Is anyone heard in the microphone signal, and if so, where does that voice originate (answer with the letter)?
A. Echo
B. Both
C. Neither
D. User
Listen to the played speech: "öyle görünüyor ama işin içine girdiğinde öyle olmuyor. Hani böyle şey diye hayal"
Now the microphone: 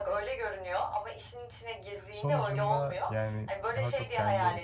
B